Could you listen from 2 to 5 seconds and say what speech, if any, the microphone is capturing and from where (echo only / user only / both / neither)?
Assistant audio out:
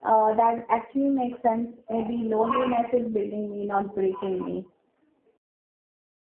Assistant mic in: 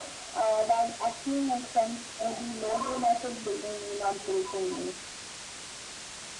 echo only